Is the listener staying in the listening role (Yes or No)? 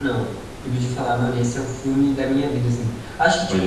Yes